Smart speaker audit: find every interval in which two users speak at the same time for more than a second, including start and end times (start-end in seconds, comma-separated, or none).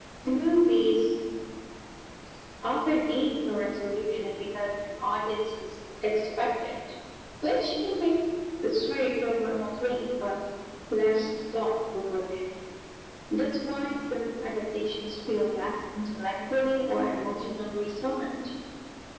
none